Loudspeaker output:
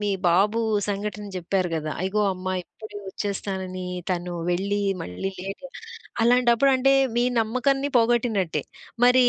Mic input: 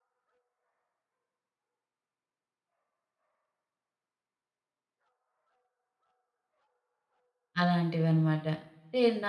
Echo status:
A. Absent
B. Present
A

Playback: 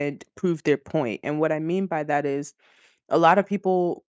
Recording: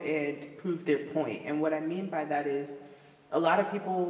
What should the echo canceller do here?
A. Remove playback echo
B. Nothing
A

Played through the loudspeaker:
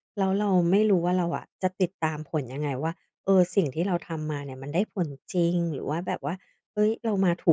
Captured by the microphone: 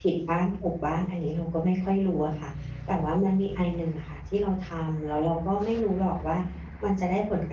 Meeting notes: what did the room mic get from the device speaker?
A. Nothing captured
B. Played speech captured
A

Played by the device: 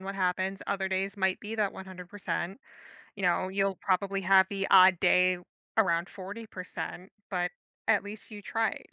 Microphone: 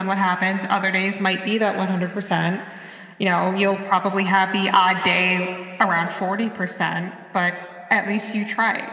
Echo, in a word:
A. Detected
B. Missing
A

